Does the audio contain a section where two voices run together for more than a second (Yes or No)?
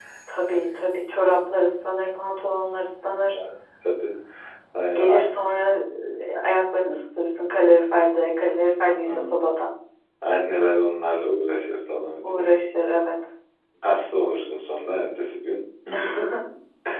No